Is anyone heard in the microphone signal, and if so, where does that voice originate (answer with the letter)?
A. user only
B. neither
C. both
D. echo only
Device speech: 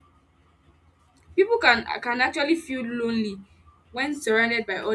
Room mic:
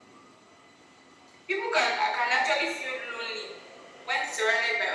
D